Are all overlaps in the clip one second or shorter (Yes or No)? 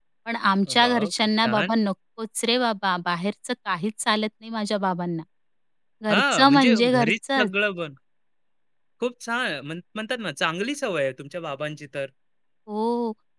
No